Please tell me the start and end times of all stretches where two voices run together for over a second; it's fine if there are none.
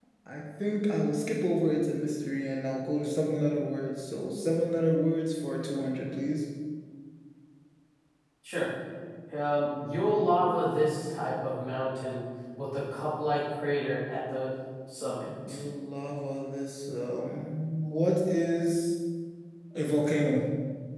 none

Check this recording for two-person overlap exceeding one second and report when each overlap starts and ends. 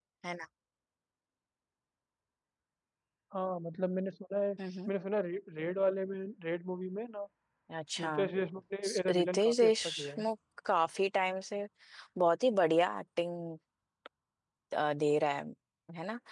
8.8-10.2

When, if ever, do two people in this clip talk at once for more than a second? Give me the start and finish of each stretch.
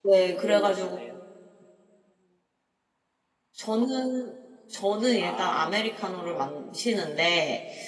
5.2-6.5

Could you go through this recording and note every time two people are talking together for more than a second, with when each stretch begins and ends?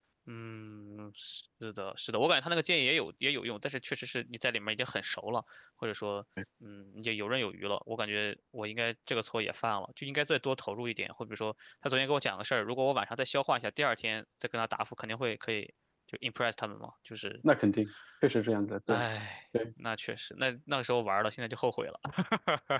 none

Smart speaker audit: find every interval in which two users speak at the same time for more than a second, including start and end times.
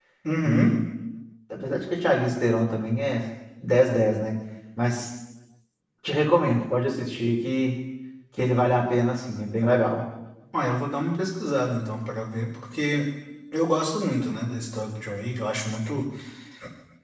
none

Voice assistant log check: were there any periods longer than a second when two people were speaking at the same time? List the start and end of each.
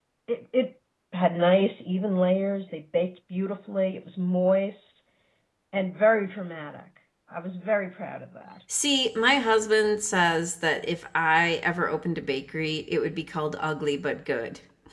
none

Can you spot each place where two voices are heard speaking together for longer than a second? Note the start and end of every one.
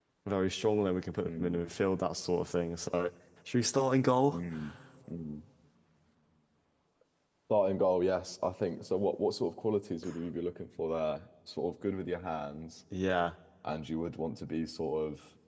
none

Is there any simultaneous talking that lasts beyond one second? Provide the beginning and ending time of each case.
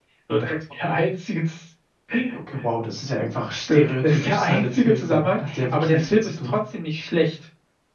3.7-6.6

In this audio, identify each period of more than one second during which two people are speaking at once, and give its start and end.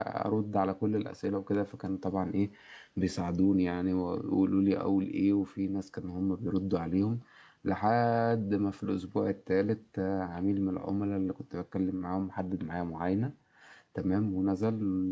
none

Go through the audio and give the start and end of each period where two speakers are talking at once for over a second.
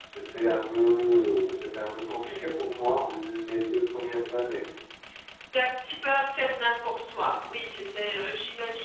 none

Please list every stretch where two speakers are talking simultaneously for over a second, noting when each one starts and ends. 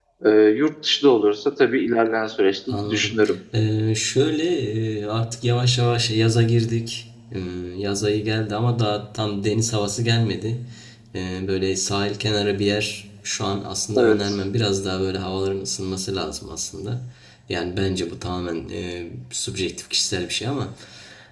none

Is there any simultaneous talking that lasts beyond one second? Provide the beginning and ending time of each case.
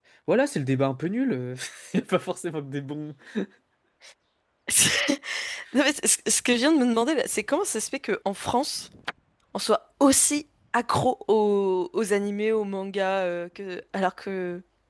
none

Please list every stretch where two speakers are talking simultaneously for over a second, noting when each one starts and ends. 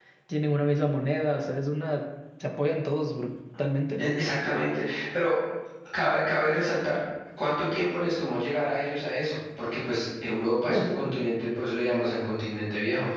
none

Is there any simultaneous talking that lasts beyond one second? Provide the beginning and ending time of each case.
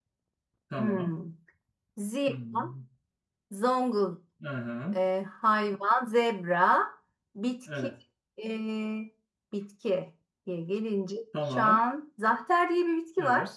none

